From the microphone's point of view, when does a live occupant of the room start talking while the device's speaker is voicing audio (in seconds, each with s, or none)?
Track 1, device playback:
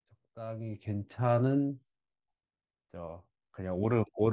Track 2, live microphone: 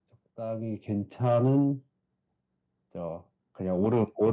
none